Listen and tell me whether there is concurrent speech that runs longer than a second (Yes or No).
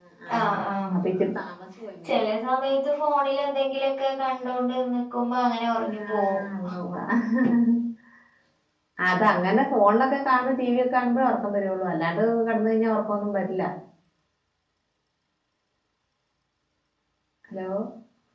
No